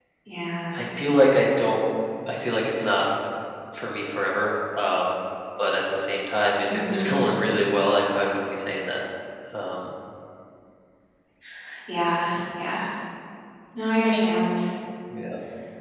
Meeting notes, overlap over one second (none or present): none